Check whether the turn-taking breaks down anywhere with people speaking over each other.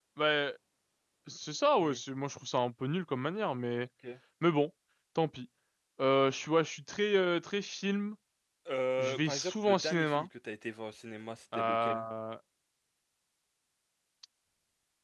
Yes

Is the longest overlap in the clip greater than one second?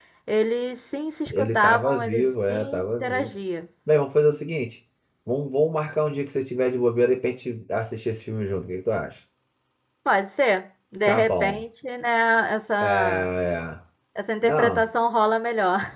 Yes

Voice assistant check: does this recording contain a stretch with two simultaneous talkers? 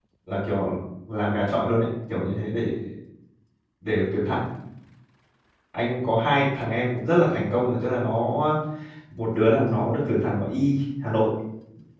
No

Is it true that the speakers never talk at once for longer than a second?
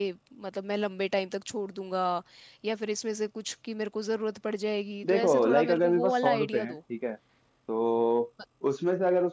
No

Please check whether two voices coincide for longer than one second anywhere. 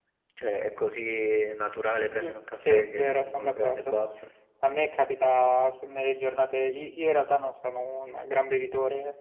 Yes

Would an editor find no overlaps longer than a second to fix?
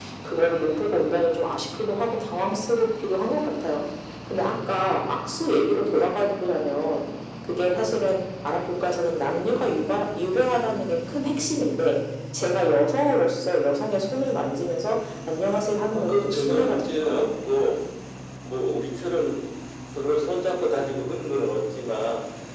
No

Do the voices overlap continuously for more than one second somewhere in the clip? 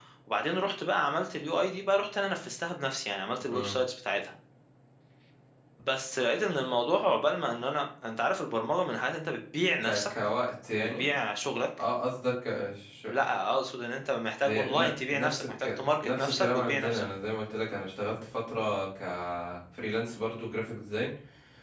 Yes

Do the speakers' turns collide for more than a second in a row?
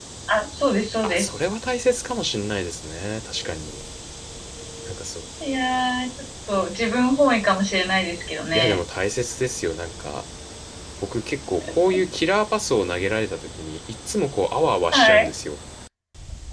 No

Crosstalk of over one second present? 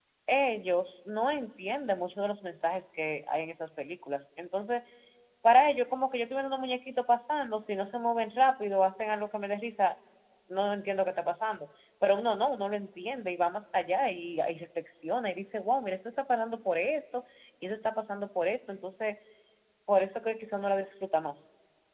No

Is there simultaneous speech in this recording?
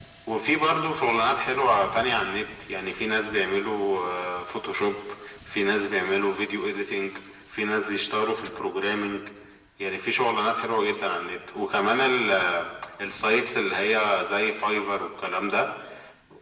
No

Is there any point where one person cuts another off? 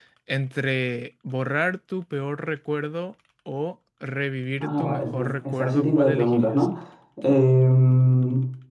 Yes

